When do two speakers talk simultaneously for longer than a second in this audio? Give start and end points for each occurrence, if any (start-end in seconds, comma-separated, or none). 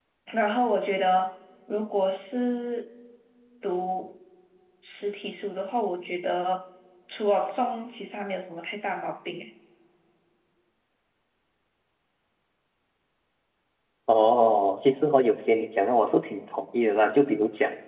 none